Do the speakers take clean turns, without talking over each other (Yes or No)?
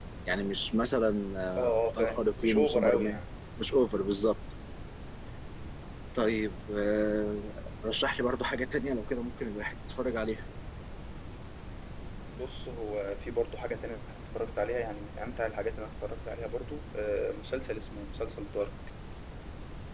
No